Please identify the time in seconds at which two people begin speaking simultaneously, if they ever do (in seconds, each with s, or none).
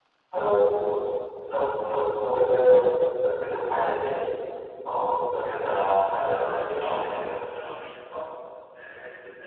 5.7 s